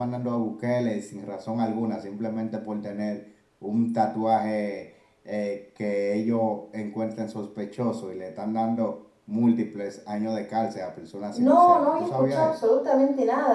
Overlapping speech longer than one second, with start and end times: 11.3-12.7

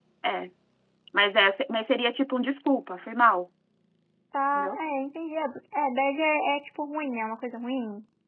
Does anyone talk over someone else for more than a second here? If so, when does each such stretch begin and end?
none

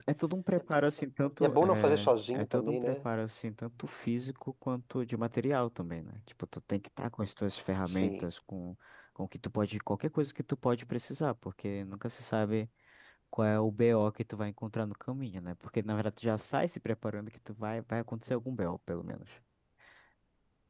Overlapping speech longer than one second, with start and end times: 1.4-3.0

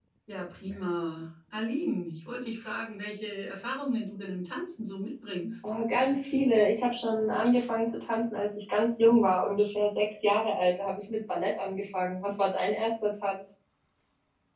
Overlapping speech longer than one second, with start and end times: none

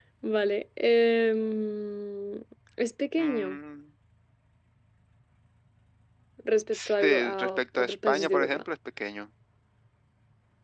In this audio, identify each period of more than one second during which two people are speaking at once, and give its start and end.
6.7-8.6

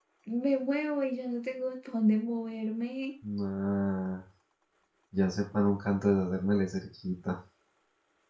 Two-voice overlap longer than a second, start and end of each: none

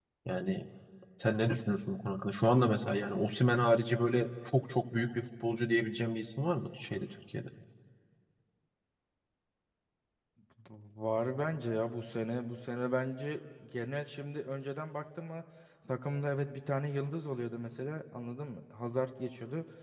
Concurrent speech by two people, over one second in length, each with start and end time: none

